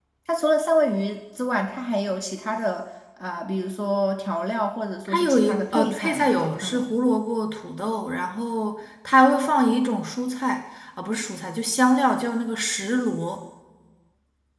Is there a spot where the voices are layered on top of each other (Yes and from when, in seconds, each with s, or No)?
Yes, from 5.0 s